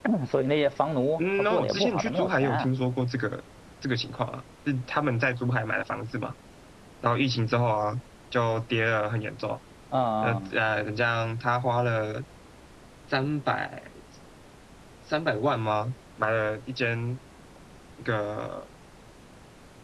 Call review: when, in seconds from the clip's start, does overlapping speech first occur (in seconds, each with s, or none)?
1.2 s